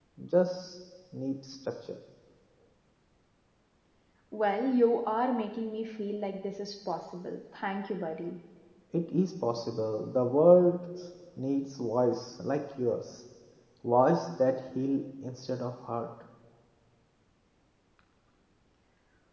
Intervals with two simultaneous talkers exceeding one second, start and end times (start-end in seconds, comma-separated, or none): none